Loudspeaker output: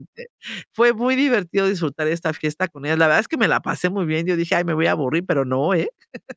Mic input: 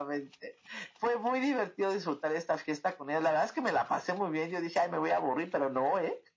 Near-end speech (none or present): none